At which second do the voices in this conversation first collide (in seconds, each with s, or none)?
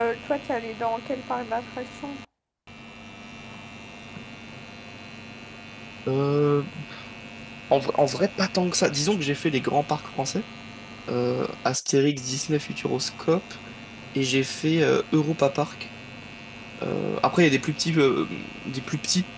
none